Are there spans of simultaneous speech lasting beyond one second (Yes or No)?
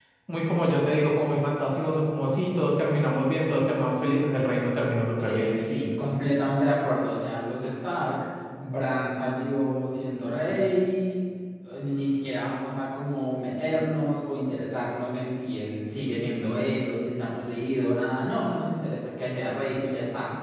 No